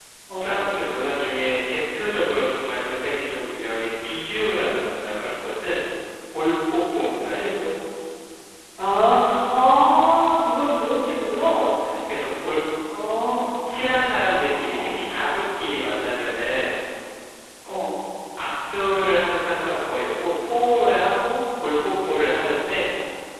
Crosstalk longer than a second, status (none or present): none